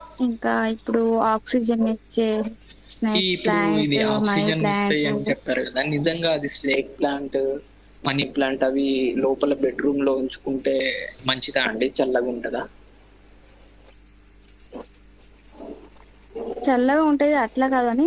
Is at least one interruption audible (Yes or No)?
Yes